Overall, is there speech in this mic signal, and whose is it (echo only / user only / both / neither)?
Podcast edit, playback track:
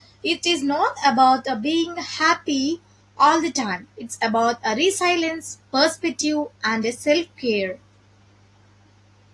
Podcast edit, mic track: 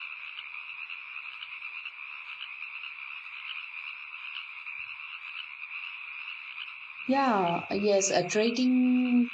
user only